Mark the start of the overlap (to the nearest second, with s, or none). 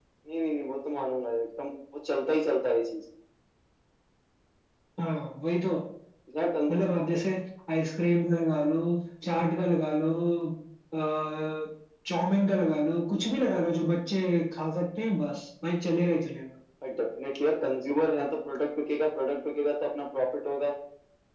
none